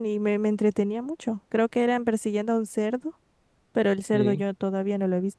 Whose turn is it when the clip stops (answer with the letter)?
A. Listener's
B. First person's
B